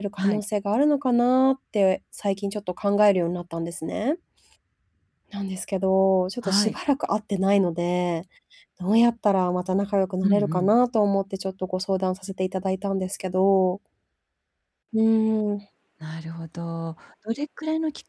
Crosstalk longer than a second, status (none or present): none